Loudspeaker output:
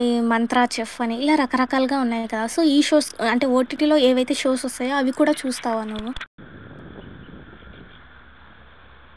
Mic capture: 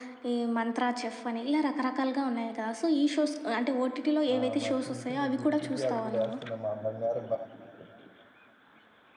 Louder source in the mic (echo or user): echo